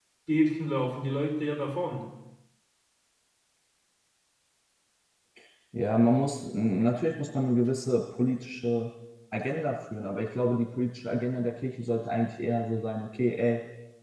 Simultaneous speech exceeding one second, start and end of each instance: none

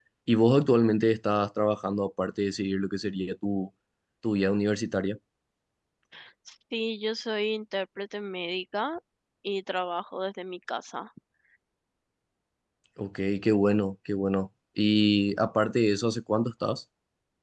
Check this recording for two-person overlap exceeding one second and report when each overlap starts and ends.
none

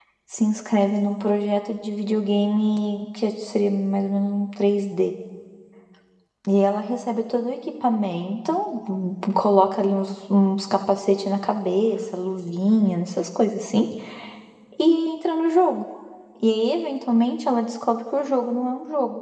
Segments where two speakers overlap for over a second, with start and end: none

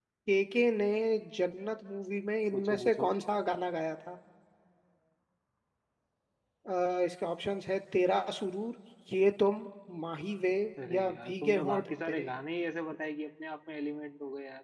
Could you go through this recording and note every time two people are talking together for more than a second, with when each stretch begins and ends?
10.9-12.3

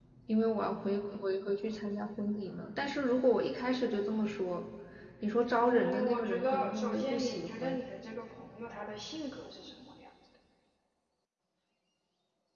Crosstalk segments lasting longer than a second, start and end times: 5.6-7.8

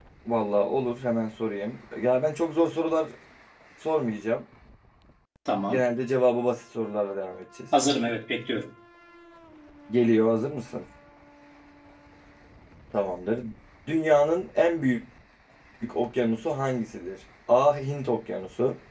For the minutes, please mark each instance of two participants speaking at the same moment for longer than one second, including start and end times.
none

